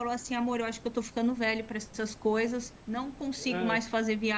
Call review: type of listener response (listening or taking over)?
listening